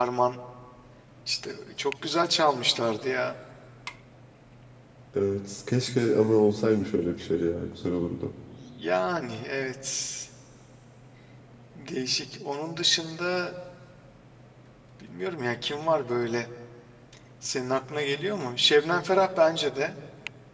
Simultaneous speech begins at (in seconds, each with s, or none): none